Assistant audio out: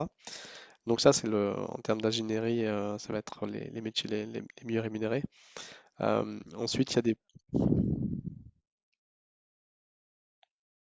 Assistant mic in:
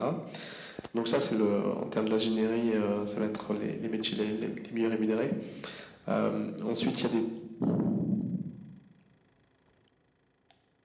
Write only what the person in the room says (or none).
none